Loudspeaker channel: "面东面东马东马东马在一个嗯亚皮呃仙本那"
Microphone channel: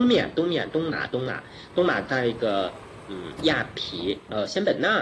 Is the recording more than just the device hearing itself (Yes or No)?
No